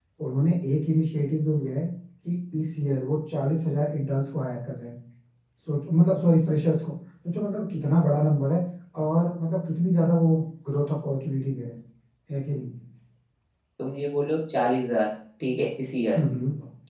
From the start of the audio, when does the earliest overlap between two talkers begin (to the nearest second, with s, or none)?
none